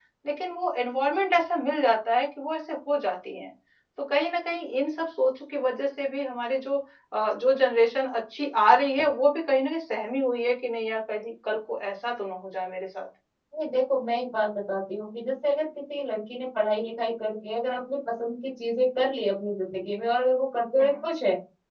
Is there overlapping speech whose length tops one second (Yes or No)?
No